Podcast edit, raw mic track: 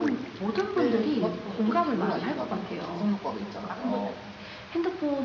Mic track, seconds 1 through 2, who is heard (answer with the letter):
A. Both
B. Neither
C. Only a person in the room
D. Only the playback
A